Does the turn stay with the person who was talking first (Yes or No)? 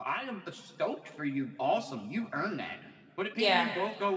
Yes